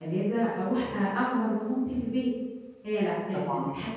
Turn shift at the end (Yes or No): No